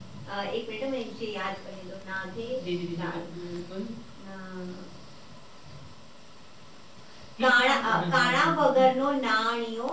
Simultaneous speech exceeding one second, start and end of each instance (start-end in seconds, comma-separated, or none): 7.4-8.8